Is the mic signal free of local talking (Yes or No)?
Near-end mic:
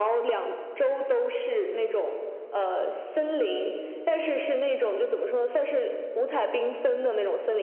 Yes